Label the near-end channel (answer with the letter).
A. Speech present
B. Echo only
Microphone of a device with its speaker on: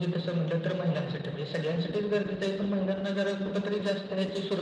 B